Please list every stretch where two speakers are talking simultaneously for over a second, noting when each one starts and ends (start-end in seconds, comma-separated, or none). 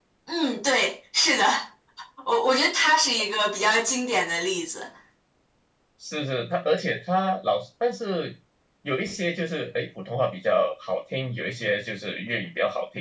none